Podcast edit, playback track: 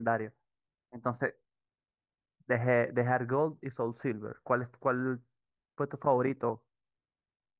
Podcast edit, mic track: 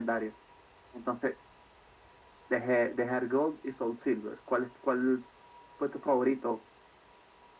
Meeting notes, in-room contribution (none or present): none